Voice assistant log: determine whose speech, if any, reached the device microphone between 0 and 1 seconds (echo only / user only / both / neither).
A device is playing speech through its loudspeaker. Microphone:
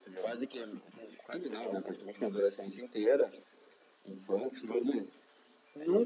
echo only